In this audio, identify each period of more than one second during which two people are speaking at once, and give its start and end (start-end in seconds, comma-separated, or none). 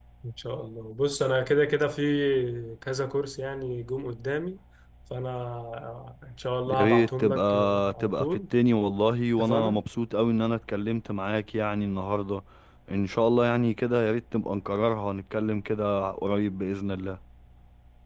6.7-8.3